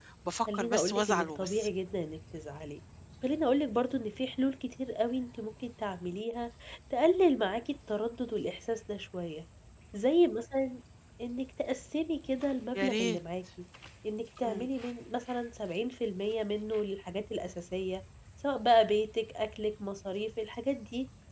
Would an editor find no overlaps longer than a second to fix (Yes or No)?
No